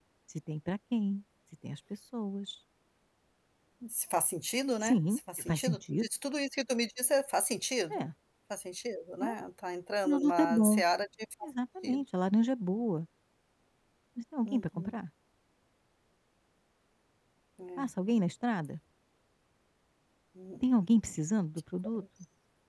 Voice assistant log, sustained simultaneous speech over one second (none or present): present